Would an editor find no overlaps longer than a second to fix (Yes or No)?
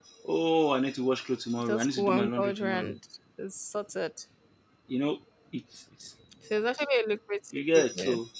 No